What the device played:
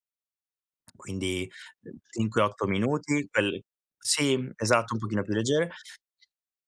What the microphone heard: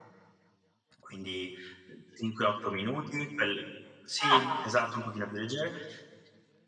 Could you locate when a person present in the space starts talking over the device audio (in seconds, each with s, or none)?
4.2 s